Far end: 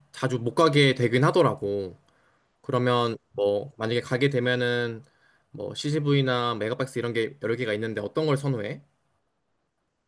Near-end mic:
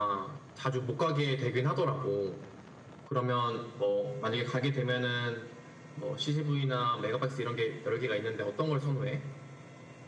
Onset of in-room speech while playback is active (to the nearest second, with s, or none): none